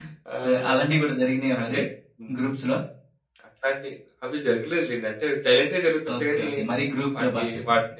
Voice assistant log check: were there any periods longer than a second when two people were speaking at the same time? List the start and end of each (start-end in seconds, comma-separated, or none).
none